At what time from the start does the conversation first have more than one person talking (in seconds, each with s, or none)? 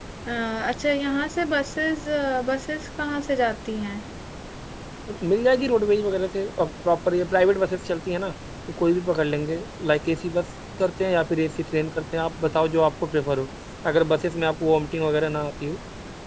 none